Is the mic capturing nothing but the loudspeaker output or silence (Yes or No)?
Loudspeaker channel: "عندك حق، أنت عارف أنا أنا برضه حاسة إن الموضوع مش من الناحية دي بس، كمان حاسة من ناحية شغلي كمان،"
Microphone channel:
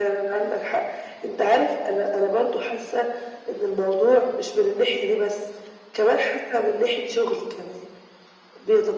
Yes